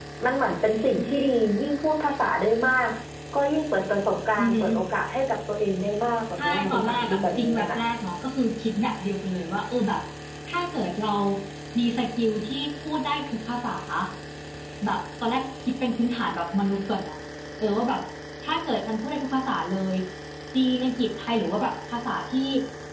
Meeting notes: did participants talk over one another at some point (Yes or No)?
Yes